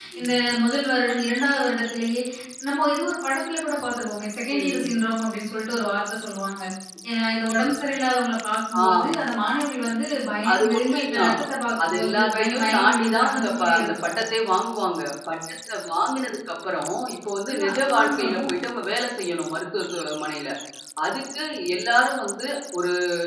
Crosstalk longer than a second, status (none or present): present